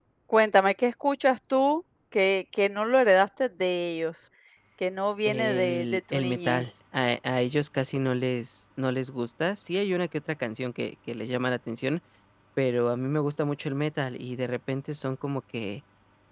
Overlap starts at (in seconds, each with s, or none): 5.2 s